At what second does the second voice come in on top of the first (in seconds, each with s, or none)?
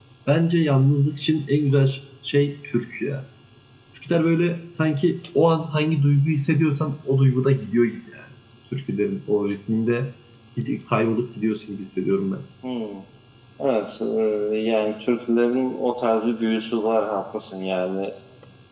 none